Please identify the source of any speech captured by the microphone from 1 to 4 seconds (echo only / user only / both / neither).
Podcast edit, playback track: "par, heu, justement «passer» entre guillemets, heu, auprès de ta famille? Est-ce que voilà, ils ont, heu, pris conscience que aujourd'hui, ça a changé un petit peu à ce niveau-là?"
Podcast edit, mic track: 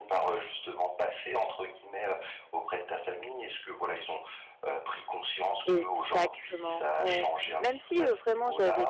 echo only